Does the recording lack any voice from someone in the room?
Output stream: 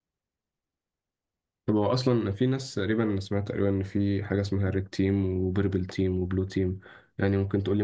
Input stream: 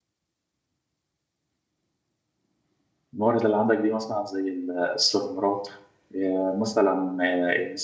No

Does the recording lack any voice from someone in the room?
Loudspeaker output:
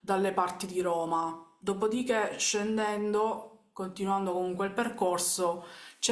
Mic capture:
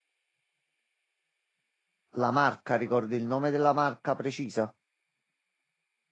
No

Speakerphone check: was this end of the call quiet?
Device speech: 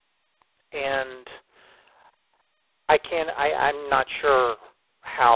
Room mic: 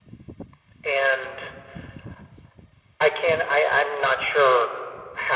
Yes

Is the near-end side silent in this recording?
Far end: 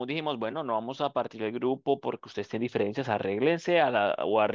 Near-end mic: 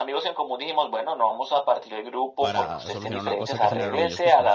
No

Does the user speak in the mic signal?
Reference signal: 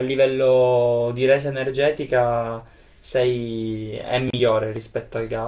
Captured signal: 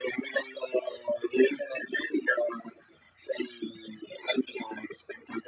No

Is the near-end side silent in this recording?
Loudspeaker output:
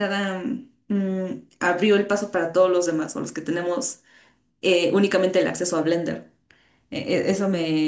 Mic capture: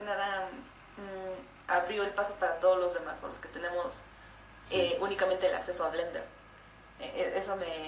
No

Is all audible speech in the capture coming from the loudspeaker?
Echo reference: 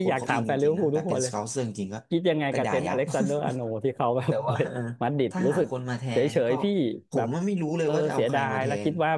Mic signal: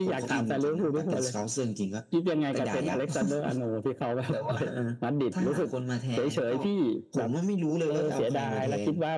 Yes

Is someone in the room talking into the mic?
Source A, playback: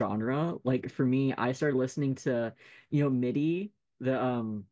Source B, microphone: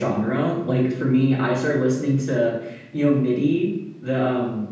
No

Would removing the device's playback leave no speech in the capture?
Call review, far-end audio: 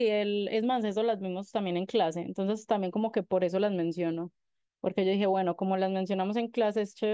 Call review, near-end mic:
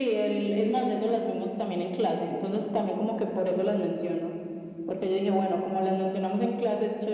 Yes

